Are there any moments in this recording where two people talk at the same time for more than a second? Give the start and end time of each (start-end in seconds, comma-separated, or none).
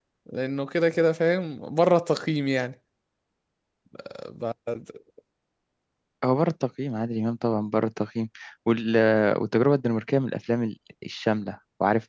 none